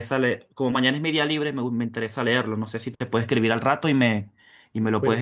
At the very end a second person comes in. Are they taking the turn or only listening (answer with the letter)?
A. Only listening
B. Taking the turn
B